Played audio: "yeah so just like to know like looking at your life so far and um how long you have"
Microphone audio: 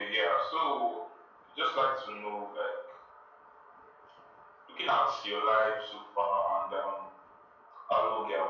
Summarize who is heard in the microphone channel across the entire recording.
echo only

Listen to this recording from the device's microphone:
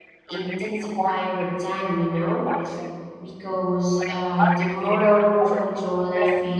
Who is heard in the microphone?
both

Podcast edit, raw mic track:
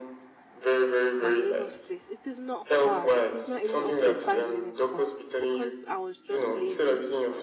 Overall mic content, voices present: both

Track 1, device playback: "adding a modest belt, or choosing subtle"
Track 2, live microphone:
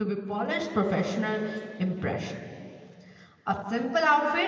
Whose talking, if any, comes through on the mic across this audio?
user only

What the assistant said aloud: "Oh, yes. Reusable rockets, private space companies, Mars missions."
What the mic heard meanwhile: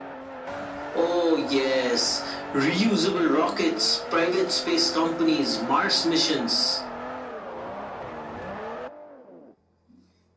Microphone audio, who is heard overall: echo only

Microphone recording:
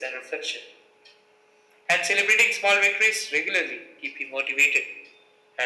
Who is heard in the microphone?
echo only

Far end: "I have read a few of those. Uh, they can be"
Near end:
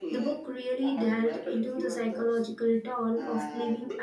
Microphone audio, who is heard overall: both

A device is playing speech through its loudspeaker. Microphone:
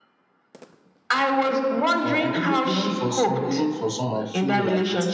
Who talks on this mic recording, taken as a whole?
both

